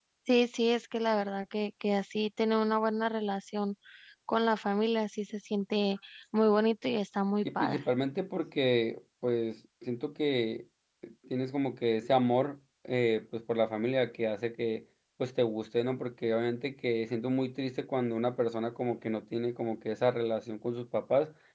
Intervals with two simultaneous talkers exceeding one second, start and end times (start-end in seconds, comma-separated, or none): none